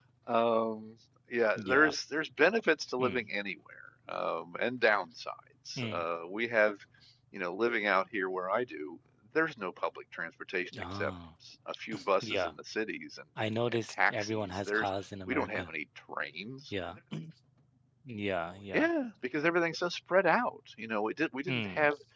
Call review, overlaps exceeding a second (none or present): present